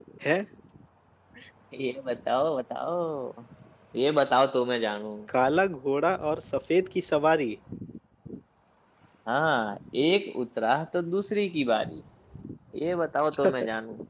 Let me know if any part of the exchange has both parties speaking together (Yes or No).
No